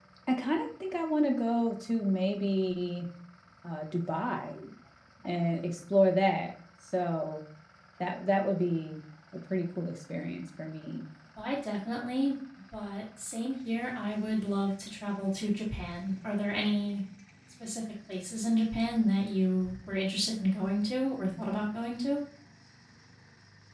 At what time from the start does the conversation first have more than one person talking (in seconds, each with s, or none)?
none